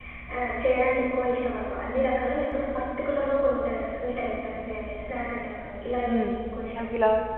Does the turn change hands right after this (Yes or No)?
Yes